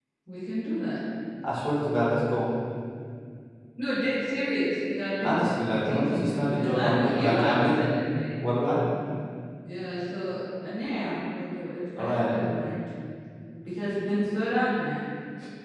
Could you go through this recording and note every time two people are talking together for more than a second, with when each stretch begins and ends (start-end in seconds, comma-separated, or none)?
5.2-7.8